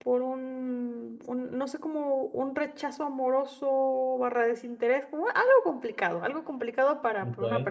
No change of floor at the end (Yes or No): Yes